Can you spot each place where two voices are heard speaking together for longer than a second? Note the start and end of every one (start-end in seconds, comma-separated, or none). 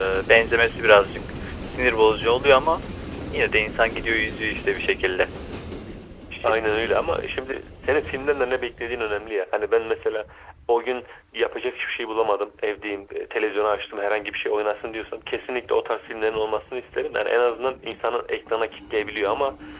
none